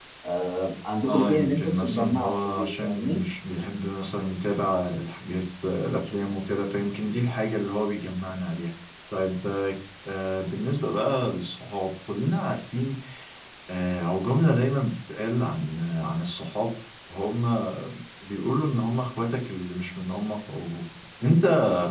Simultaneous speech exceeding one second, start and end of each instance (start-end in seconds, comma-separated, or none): 1.1-3.2